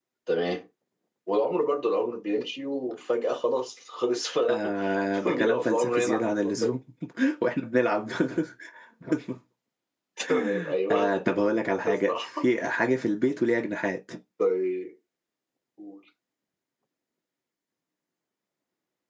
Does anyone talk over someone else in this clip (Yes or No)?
Yes